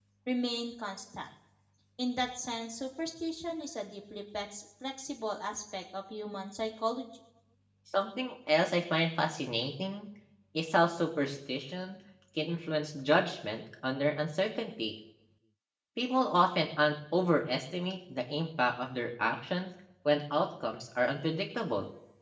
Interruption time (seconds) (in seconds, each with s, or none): none